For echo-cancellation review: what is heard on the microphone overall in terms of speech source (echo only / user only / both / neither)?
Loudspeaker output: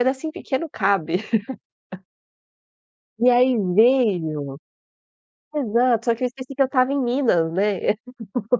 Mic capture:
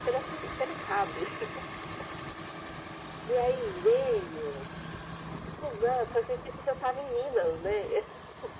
echo only